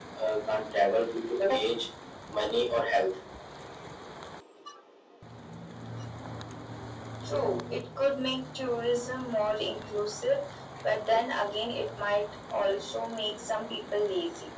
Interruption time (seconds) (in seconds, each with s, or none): none